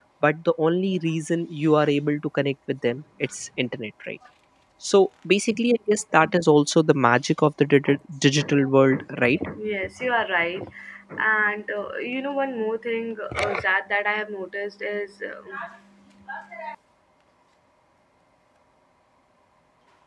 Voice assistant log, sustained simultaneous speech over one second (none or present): none